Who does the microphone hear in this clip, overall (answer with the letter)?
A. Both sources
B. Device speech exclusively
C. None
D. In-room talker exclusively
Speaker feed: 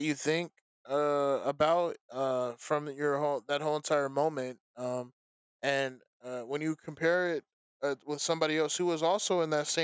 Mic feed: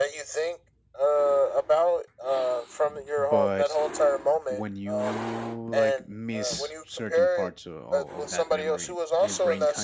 A